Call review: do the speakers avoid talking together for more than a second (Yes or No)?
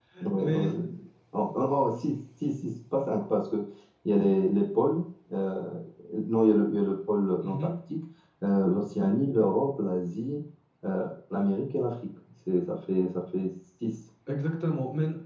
Yes